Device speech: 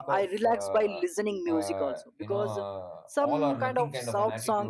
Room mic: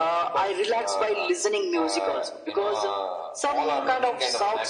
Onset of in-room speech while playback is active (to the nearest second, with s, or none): none